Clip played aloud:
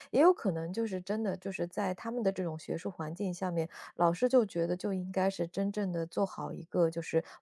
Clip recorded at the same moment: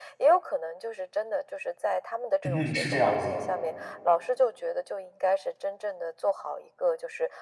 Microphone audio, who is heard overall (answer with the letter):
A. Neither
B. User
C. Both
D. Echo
C